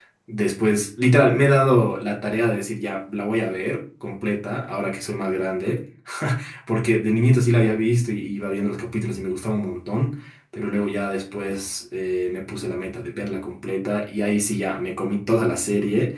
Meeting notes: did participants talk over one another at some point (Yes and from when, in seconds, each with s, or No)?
No